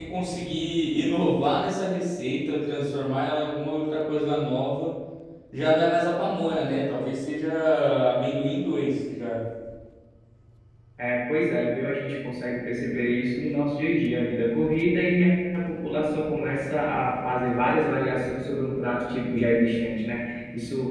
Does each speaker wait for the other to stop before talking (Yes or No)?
Yes